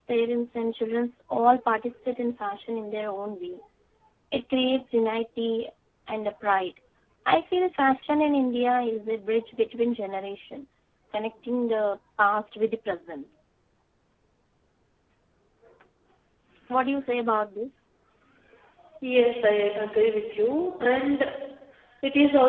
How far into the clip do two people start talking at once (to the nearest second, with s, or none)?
none